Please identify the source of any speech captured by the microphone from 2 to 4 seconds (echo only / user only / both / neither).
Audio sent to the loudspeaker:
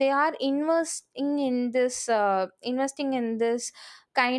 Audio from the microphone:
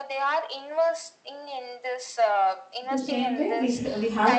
both